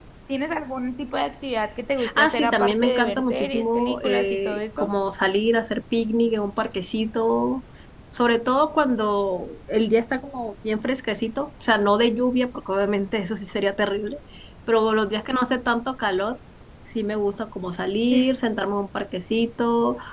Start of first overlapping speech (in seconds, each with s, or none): 2.0 s